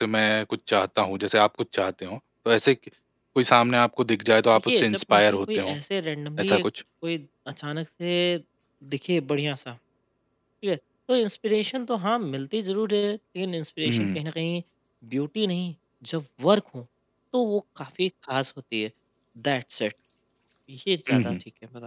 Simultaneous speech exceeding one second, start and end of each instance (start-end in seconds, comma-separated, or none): 4.5-5.8